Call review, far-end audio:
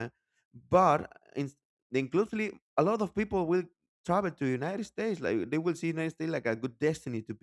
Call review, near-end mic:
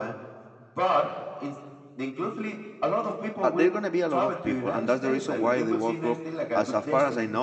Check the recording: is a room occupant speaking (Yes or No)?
Yes